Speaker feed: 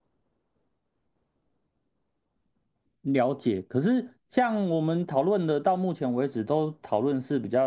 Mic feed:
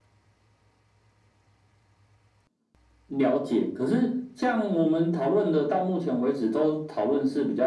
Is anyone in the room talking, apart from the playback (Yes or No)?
No